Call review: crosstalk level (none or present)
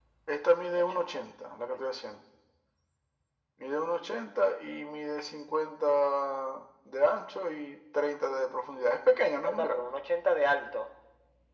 present